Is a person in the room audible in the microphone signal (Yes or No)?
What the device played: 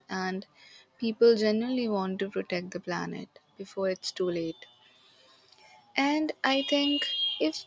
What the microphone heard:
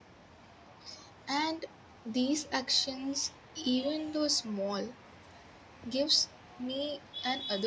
Yes